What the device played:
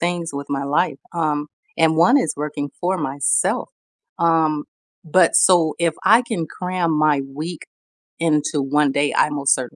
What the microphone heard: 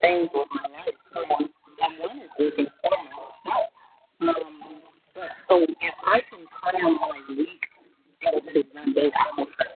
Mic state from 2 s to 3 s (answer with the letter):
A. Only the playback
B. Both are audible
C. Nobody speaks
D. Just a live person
A